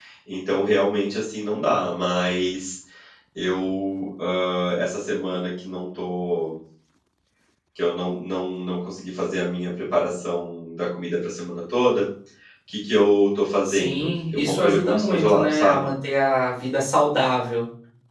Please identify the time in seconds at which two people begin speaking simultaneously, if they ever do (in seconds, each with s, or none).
13.6 s